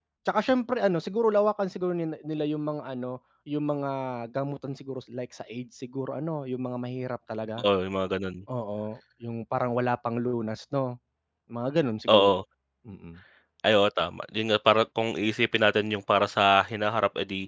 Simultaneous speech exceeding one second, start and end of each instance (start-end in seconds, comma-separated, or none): none